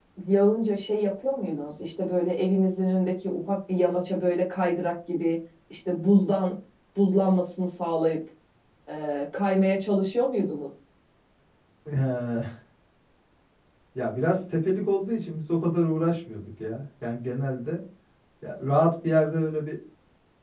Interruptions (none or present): none